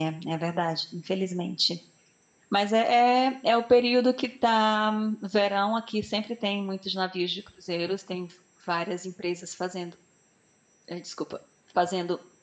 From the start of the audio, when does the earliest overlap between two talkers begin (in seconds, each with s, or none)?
none